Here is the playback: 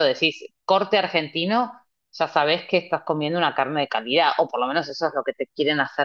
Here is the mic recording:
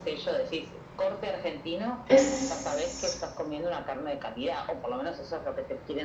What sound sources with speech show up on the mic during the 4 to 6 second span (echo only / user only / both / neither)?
echo only